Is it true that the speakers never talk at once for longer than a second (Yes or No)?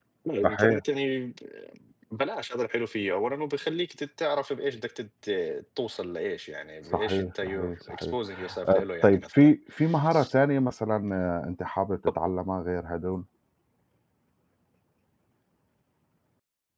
No